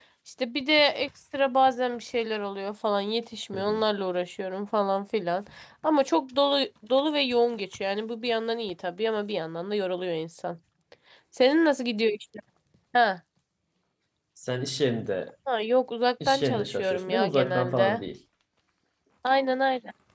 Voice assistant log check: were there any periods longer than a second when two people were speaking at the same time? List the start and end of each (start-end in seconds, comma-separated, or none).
16.3-18.0